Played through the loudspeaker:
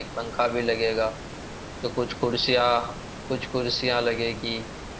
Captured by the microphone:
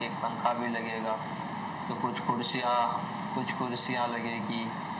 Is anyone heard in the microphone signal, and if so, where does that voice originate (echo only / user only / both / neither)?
echo only